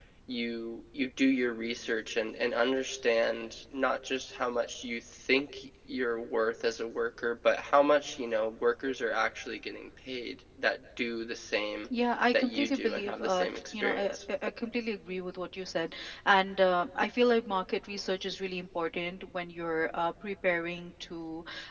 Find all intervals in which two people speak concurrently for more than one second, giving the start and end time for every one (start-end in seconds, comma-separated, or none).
12.3-14.2